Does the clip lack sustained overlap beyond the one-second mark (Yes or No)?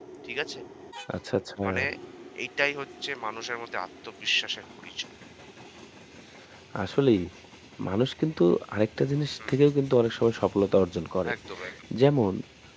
Yes